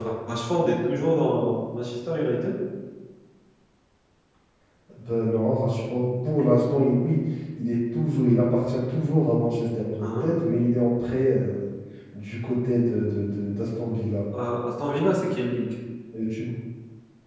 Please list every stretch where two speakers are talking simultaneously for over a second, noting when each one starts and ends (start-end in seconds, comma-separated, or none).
none